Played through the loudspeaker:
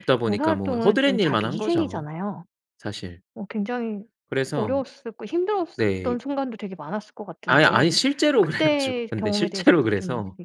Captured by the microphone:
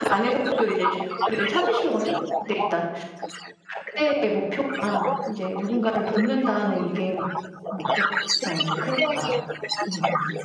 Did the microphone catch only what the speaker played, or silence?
No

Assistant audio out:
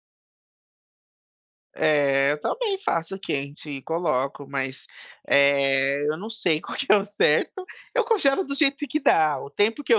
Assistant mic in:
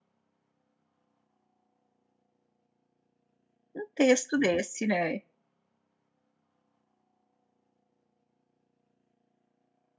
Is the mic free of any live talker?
No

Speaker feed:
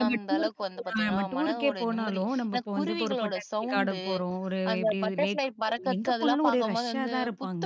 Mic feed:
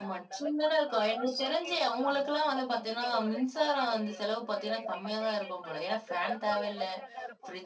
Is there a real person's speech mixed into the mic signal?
Yes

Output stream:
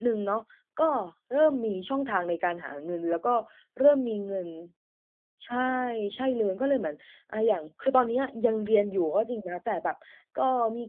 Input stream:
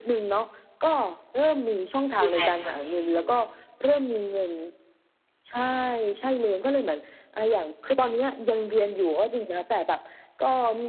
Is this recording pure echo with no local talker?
No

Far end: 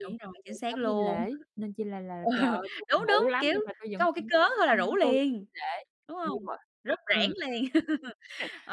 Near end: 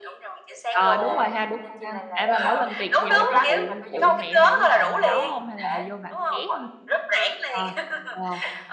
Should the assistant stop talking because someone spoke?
Yes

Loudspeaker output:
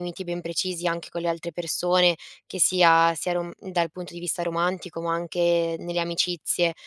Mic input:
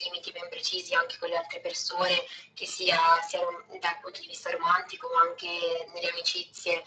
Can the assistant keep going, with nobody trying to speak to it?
Yes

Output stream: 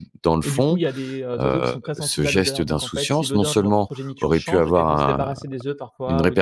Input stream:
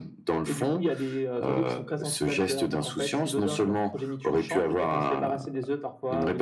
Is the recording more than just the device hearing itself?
No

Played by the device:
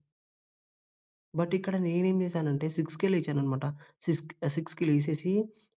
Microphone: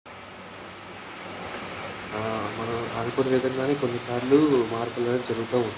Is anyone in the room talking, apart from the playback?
Yes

